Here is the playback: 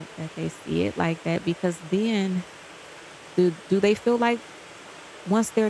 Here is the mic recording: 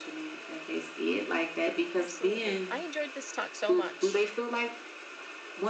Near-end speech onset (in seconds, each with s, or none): 2.0 s